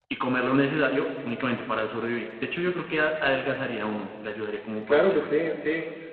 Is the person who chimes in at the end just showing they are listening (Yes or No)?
No